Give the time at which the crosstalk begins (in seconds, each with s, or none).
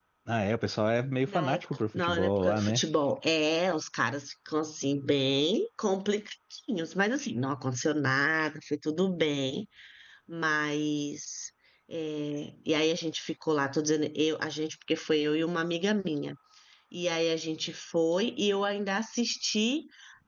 1.3 s